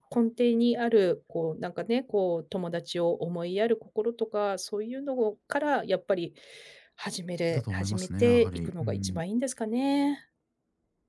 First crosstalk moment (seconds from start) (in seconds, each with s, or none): 7.5 s